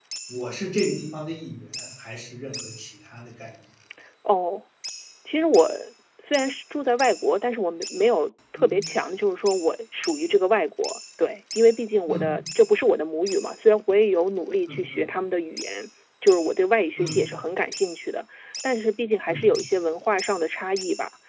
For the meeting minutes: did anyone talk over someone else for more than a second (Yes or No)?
No